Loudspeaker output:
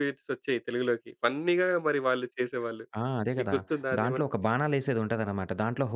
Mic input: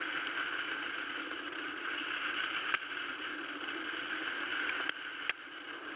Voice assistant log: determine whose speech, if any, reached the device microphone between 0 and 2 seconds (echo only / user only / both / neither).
neither